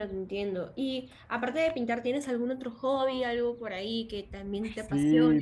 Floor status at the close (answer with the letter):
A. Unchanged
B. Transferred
B